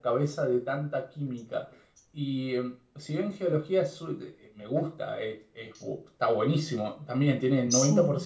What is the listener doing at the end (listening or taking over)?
listening